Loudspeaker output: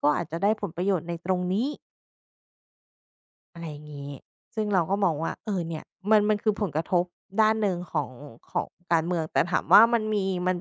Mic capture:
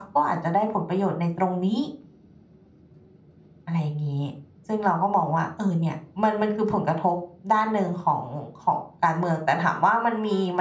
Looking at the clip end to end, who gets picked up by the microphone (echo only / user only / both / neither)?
echo only